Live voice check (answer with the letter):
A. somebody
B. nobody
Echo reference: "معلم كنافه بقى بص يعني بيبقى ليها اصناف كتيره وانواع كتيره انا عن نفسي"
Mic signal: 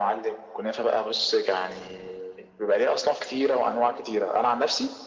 B